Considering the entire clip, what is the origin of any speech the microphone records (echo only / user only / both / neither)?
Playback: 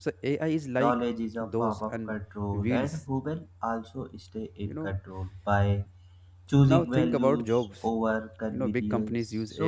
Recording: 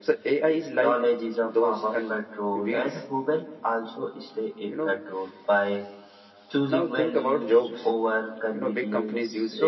echo only